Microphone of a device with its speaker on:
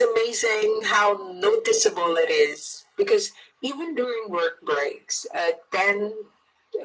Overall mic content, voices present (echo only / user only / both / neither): echo only